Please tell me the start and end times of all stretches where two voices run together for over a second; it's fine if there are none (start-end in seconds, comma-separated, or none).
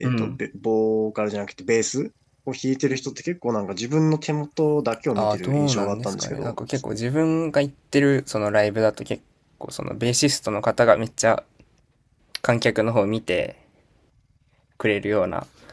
5.2-6.6